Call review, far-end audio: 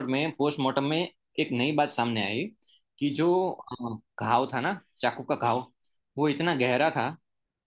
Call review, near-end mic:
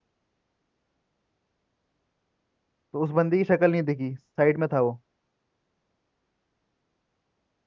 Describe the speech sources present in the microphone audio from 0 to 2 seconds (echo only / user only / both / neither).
neither